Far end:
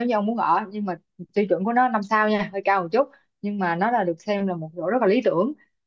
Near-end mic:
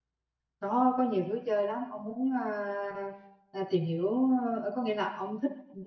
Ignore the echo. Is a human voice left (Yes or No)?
Yes